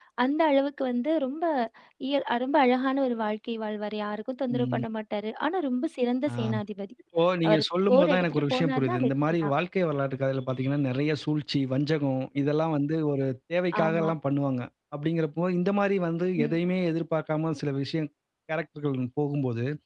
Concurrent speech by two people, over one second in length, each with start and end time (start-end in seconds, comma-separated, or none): 7.5-9.5